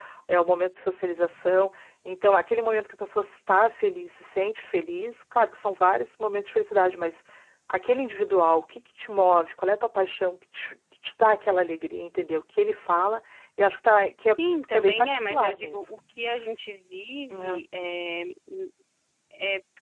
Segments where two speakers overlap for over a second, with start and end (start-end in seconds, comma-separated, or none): 14.3-15.8